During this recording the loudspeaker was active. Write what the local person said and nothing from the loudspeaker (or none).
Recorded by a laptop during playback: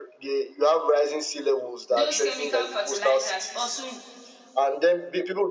Those chemical fertilizers also